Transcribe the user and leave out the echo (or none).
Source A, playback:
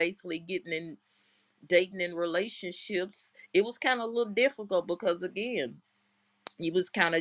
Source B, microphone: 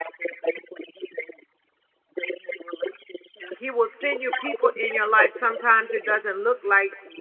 he will send you people in your life sometimes it doesn't look like